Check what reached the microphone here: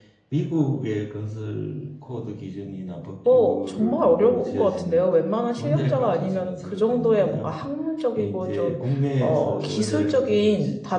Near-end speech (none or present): present